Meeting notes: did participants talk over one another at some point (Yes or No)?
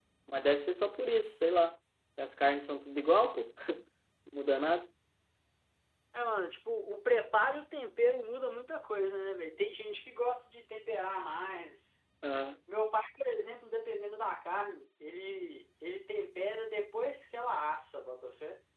No